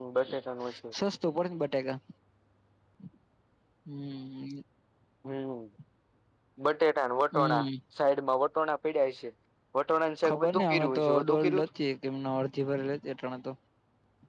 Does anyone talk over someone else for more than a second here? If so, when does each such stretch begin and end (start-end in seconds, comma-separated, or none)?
10.3-11.6